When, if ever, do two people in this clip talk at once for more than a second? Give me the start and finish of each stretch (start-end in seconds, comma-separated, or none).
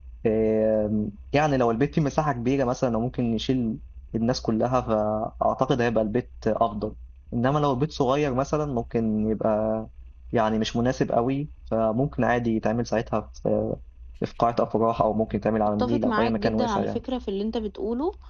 15.8-17.0